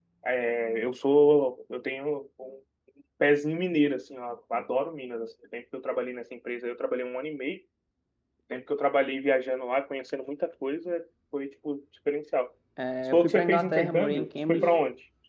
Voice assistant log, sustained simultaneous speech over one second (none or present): present